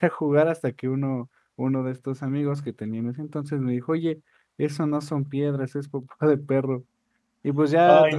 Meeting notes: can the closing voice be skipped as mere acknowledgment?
Yes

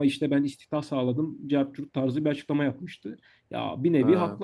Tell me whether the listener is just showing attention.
Yes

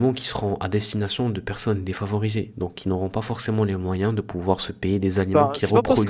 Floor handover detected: Yes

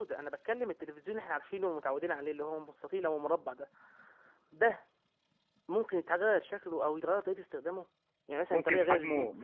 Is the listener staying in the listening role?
No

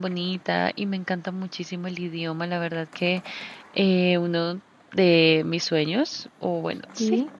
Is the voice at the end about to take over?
No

